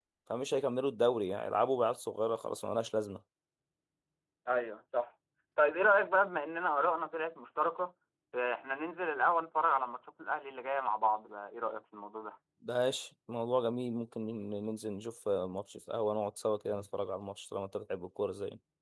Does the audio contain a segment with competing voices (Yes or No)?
No